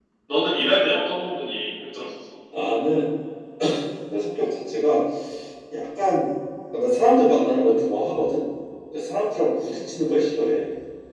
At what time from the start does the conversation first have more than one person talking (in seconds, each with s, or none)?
none